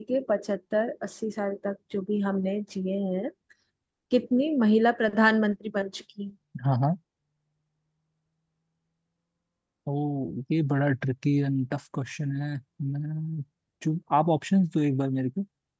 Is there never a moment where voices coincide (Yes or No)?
Yes